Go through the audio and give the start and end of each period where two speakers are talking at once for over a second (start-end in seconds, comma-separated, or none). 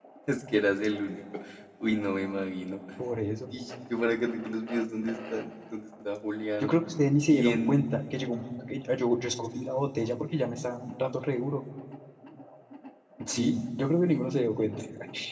none